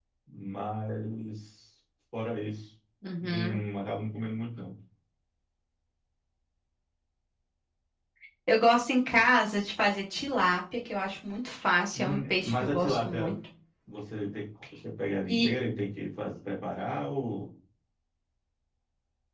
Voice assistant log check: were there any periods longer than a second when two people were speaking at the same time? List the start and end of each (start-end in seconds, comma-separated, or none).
11.9-13.3